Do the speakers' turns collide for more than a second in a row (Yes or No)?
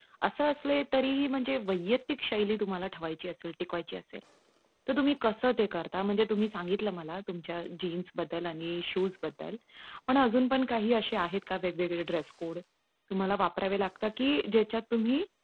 No